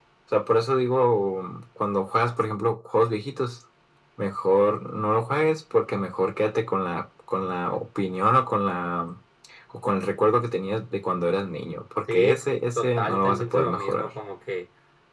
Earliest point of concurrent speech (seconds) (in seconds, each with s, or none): 12.1 s